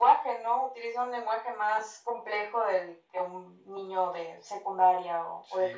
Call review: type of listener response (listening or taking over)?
taking over